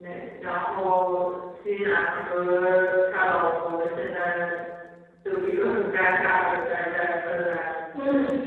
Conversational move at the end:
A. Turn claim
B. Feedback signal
A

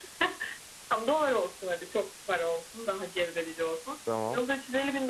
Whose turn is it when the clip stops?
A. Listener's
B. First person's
B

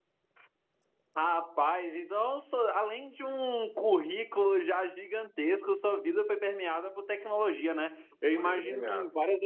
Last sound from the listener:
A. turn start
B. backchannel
B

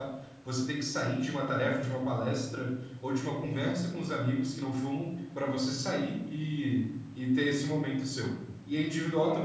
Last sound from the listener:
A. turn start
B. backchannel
B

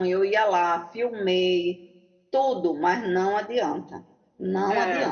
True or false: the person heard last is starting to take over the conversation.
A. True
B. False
B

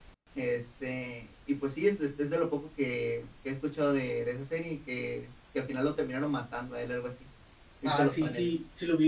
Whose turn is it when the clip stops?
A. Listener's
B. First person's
A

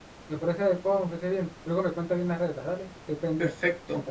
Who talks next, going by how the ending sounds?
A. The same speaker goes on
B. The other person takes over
B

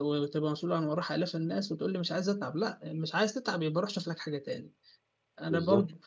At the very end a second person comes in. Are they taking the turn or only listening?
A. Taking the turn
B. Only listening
B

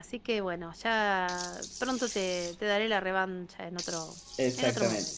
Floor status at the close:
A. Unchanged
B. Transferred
B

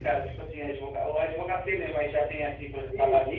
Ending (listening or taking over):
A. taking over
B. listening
A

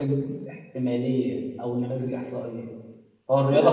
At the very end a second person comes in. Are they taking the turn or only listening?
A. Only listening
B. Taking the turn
A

